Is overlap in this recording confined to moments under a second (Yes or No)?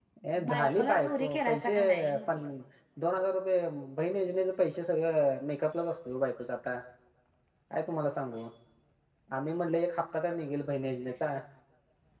No